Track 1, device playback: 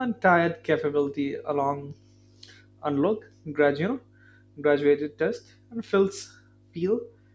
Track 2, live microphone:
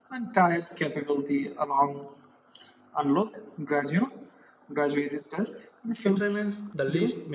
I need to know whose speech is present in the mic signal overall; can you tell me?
both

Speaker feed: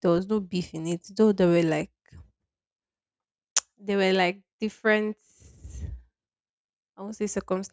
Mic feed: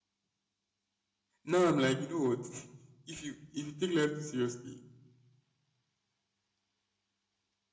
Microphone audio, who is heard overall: user only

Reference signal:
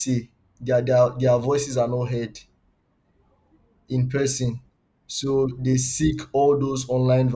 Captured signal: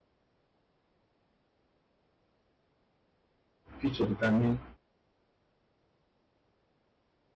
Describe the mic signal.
user only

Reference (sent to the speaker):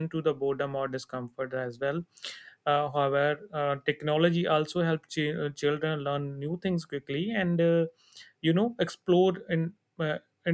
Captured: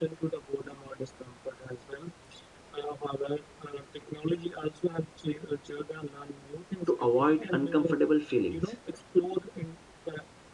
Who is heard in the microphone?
both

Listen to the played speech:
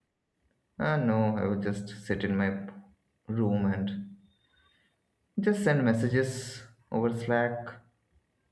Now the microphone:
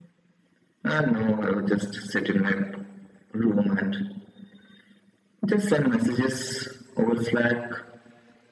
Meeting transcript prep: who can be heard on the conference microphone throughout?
echo only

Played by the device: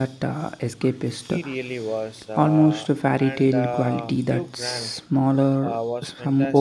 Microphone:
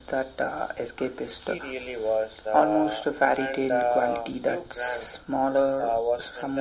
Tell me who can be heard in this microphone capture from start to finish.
echo only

